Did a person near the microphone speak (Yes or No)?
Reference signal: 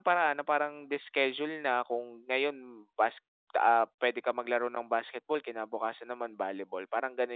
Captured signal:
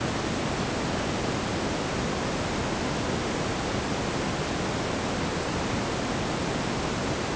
No